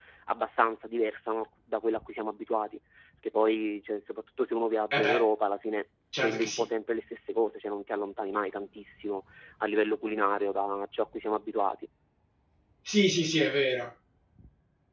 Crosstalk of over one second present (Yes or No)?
No